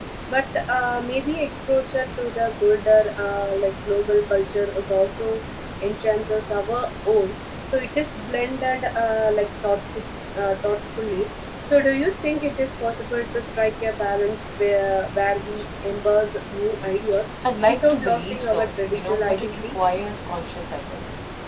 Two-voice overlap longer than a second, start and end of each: 17.7-19.8

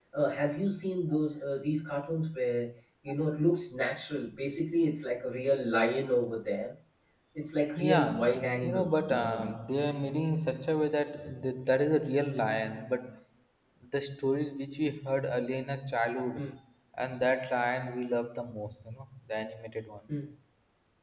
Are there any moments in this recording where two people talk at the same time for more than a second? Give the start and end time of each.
7.8-9.5

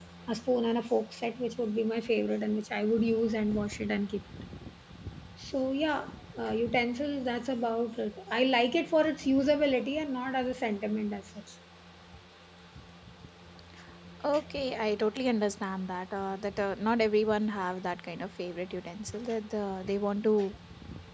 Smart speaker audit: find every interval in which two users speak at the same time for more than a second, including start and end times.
none

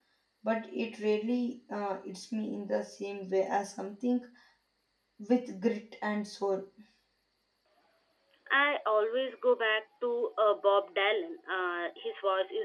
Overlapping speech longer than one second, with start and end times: none

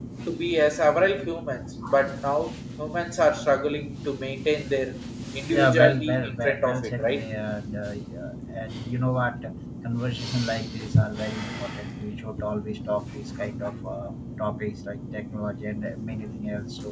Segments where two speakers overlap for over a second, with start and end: 5.5-7.2

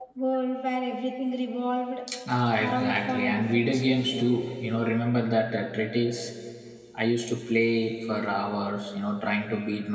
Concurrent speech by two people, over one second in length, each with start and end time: 2.6-4.4

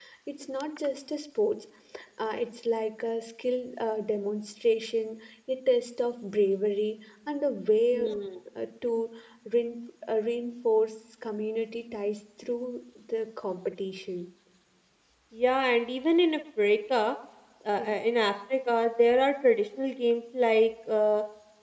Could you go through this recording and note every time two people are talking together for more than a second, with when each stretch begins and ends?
none

